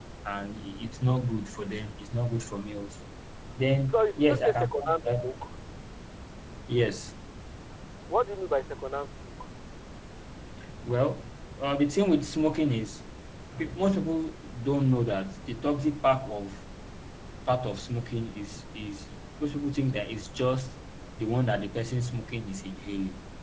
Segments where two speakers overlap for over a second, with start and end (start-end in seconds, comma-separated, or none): 3.9-5.3